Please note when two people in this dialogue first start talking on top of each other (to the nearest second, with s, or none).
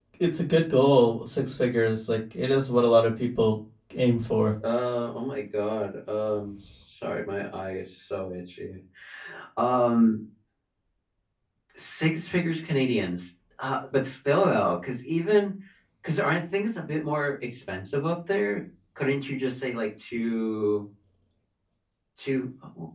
none